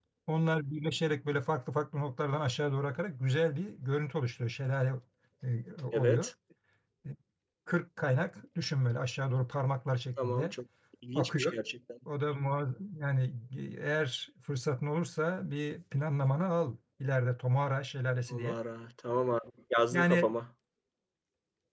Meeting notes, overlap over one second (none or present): none